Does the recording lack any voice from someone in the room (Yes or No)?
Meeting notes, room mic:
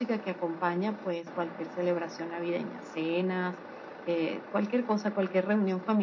Yes